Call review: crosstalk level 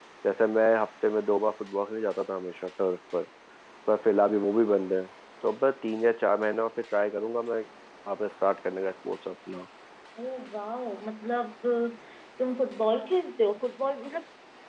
none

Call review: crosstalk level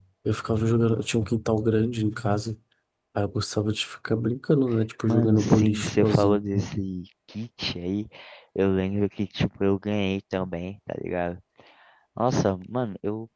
present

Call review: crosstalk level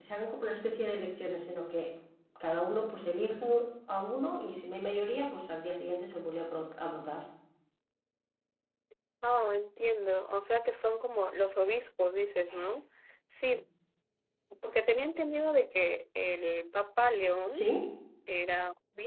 none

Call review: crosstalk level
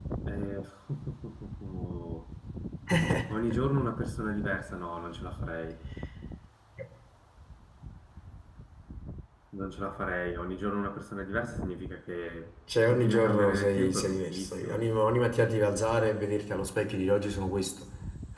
present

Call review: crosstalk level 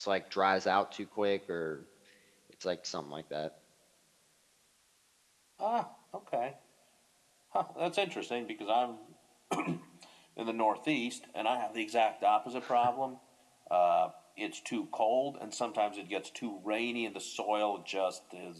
none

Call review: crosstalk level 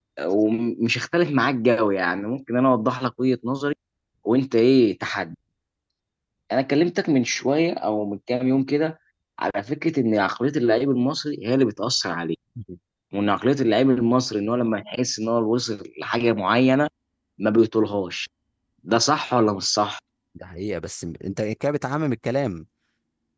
none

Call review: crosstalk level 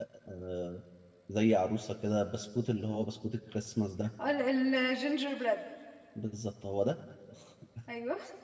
none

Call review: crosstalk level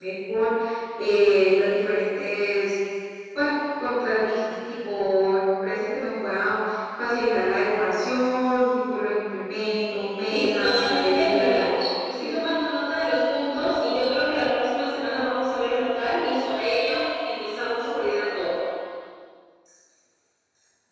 present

